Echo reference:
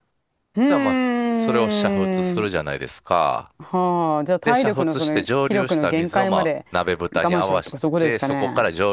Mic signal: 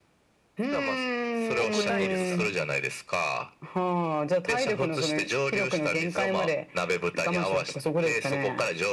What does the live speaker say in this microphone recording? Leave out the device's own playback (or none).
億単位ですからね。